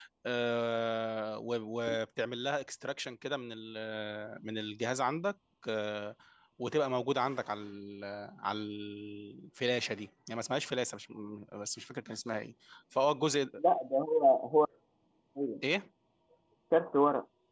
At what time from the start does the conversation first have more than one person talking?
none

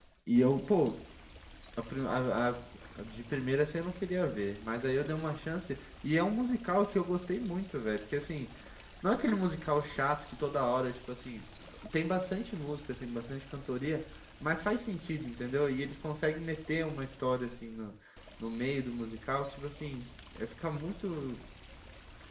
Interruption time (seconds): none

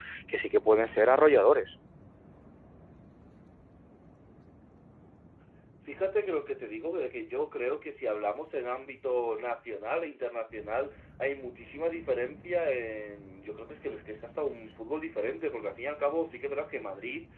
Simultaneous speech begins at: none

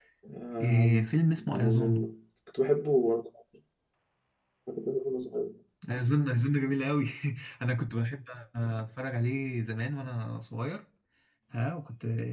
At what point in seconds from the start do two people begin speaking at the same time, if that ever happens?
0.6 s

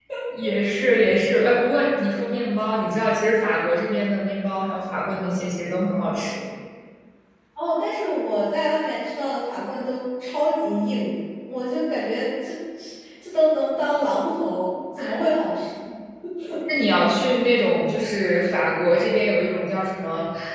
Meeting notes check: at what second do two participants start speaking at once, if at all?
none

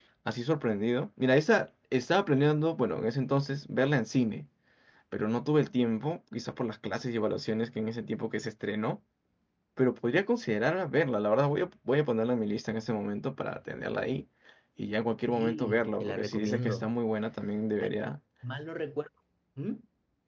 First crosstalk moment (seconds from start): 15.3 s

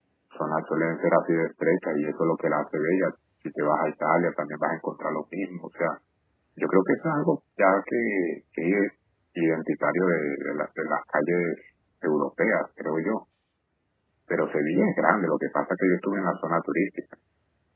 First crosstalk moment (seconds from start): none

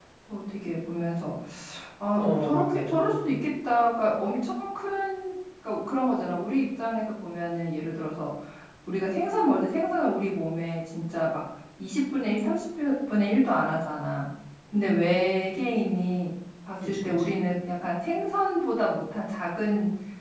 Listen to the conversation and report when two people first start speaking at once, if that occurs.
2.1 s

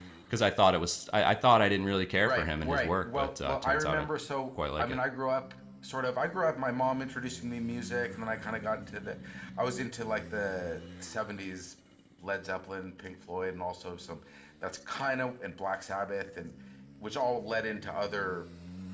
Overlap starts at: 2.2 s

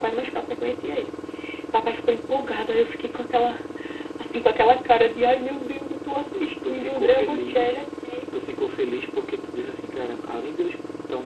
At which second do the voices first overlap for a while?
6.3 s

